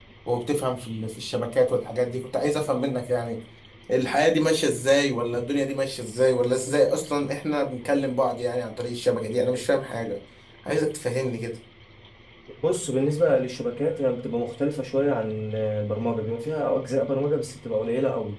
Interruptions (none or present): none